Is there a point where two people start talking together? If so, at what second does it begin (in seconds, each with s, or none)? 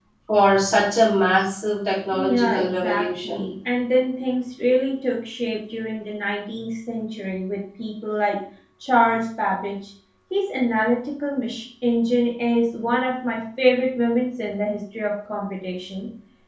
2.1 s